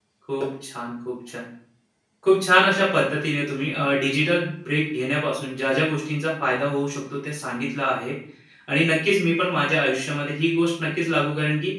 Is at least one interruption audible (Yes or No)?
No